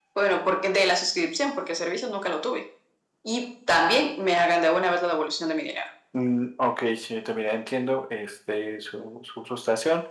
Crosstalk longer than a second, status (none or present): none